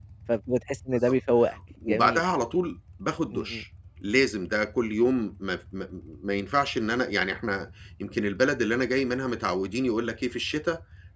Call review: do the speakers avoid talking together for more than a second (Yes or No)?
Yes